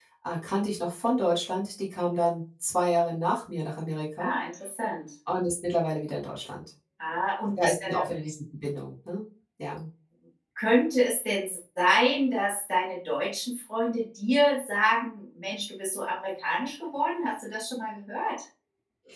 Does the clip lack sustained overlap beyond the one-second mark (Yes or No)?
Yes